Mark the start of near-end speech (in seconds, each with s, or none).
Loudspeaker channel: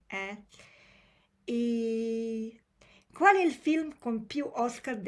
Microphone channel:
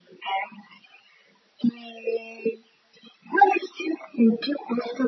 none